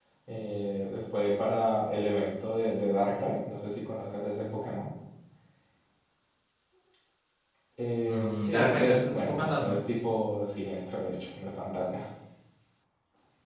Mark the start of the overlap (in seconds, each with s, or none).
8.1 s